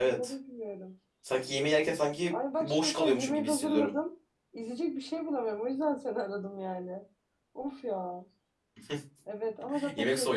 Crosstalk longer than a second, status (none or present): present